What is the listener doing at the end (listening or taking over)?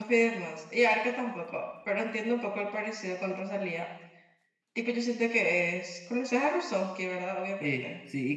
taking over